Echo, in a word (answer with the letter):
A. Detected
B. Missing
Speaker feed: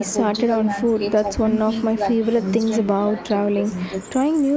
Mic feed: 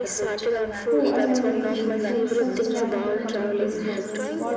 A